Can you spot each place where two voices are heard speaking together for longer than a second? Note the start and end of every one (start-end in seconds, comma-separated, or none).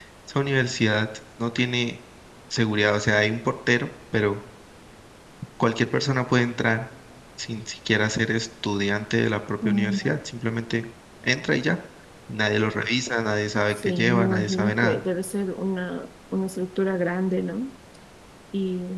13.7-15.0